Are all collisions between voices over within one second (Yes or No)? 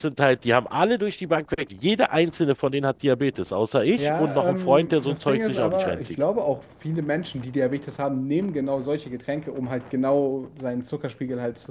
No